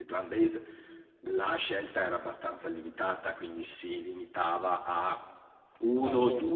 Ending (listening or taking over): listening